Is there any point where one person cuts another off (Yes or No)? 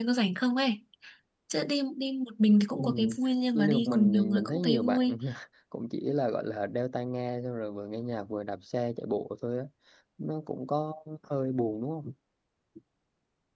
Yes